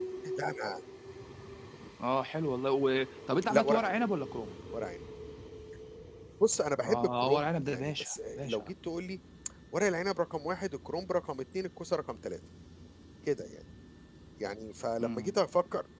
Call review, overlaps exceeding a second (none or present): present